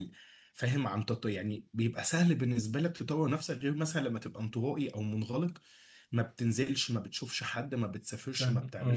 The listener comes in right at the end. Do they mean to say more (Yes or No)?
No